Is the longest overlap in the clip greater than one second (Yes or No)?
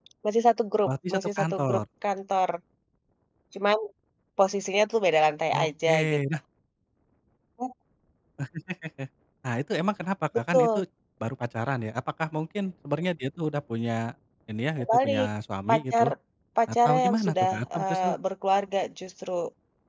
Yes